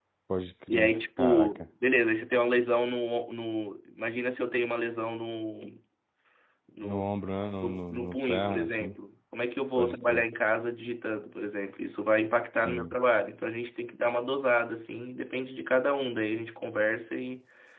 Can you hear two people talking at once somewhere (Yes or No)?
Yes